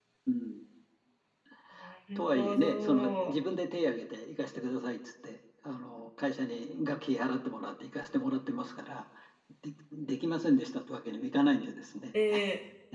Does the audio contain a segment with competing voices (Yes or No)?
Yes